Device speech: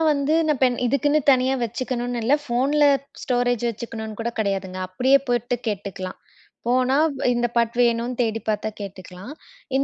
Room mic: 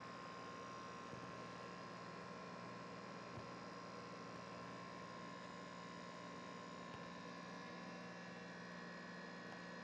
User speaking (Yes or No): No